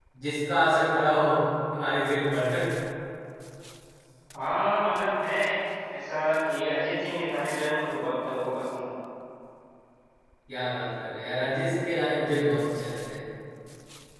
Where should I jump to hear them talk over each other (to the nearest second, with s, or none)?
none